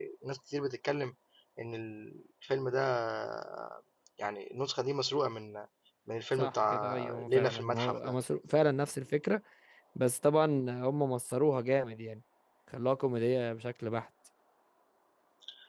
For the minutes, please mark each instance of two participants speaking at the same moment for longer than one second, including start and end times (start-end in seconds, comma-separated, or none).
6.4-8.1